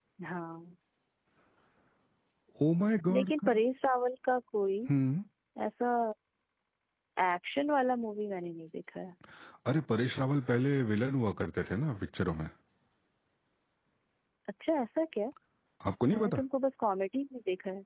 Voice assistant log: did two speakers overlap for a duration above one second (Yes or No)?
No